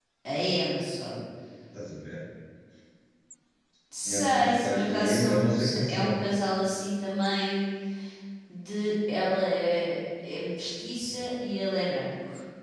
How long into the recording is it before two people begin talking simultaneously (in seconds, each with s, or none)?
4.0 s